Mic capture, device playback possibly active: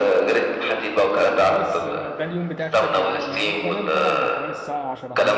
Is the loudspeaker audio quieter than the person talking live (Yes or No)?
No